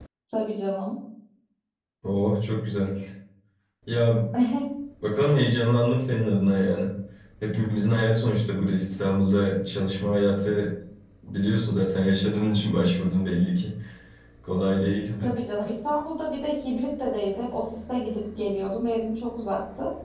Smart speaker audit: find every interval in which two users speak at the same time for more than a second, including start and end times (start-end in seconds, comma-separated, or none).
none